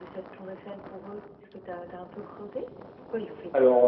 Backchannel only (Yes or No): No